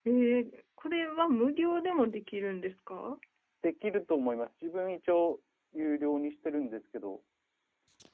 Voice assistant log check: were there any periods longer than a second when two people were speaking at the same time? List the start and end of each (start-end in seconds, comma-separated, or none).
none